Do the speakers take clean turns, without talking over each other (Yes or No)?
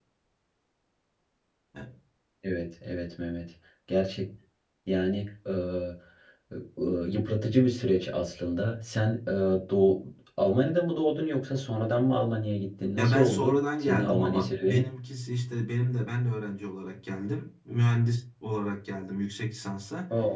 No